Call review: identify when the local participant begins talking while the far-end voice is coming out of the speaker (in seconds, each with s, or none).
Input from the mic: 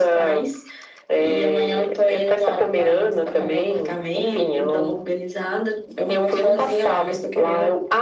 none